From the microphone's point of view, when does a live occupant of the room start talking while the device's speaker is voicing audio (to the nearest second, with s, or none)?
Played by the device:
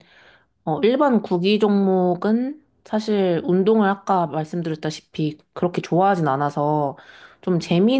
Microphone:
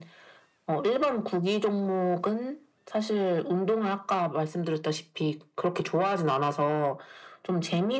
none